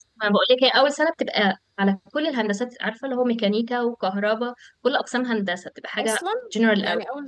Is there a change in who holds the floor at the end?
Yes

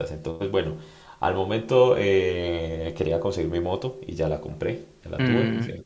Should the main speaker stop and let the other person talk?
No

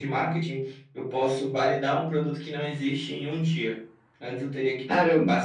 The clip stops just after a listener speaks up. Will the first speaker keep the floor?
Yes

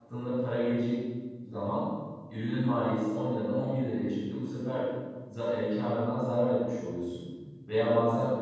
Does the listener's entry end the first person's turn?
No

